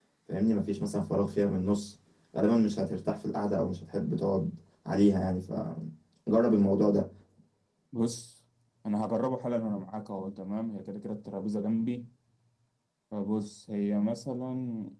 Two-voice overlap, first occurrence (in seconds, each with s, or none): none